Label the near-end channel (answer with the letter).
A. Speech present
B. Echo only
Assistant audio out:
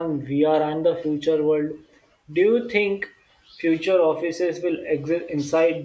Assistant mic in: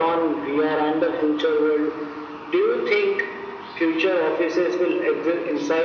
B